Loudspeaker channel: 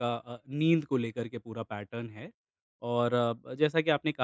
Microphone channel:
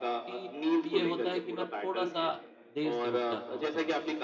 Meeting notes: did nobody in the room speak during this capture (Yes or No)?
No